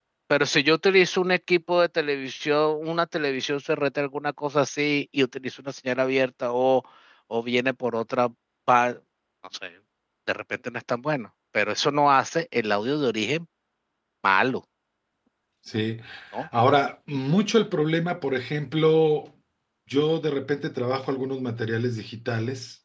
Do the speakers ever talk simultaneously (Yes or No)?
No